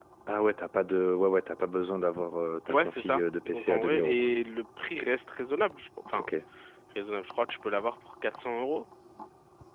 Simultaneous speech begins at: 2.7 s

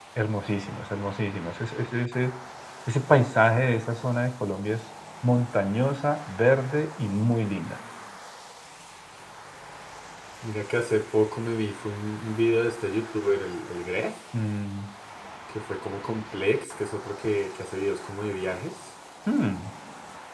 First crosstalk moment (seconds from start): none

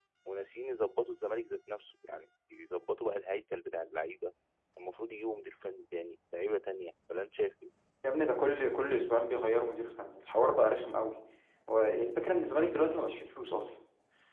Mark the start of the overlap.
none

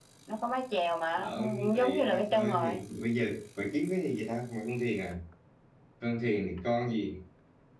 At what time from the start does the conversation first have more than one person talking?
1.1 s

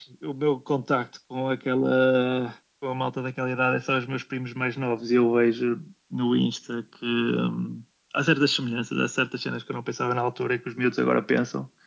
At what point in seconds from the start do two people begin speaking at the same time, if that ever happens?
none

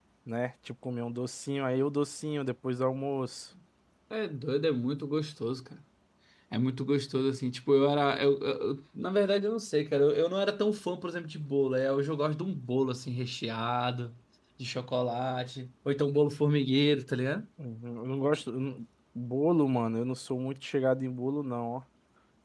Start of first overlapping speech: none

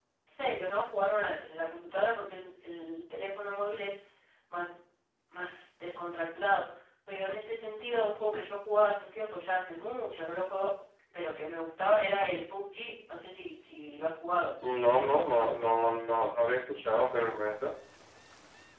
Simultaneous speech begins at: none

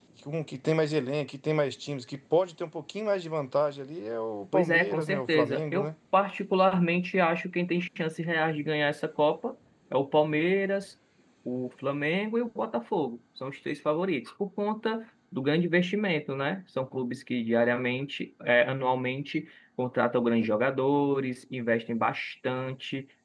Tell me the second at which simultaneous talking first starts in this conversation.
4.5 s

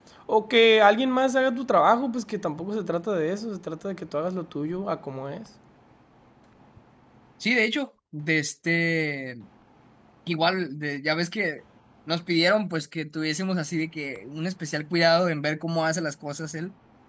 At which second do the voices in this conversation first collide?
none

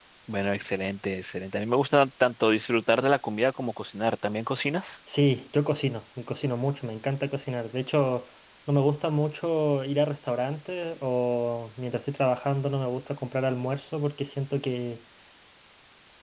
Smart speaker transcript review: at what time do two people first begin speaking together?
none

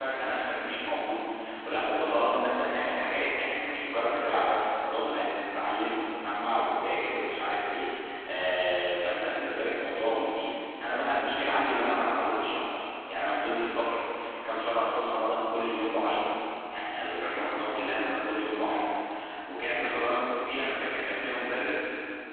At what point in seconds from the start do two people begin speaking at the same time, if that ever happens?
none

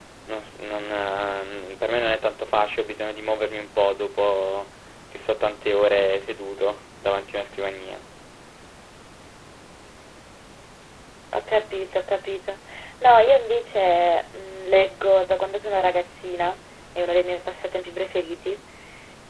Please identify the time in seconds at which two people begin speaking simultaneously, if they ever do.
none

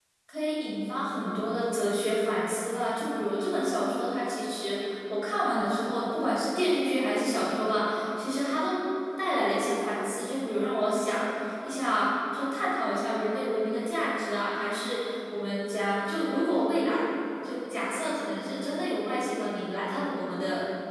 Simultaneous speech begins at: none

